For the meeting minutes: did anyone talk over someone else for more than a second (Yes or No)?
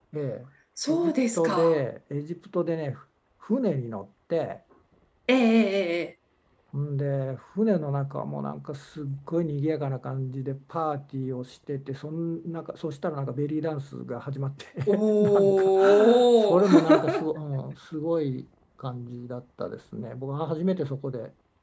Yes